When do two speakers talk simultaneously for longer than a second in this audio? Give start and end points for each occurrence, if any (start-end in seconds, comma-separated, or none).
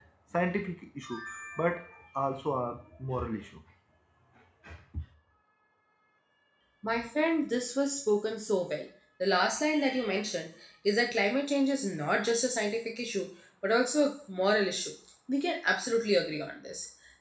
none